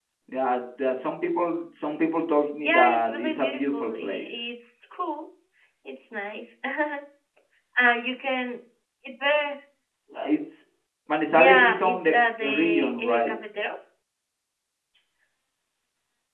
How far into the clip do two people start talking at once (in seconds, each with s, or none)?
2.6 s